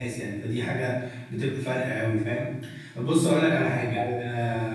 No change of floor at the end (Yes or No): Yes